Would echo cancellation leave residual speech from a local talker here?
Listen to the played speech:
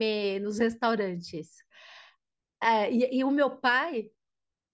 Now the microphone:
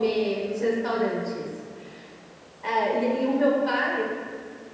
No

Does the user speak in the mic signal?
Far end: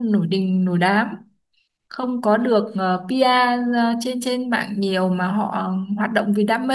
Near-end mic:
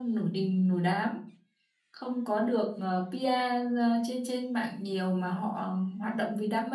No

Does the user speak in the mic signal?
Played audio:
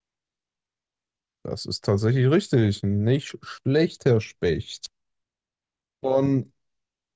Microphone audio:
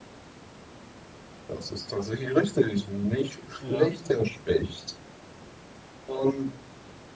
Yes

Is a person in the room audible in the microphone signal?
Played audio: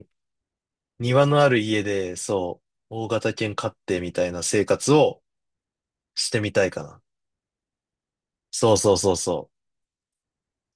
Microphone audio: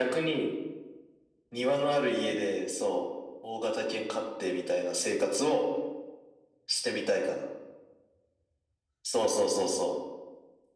No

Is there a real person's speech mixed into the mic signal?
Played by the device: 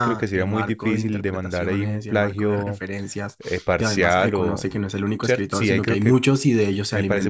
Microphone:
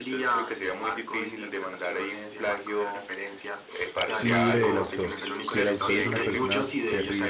Yes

